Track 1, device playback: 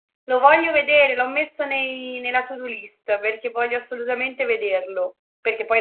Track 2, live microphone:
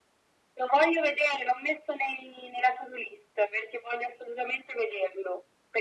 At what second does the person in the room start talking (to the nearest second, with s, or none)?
none